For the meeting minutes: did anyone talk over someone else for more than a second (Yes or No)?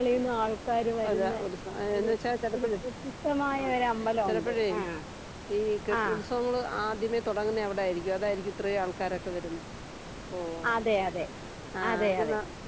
No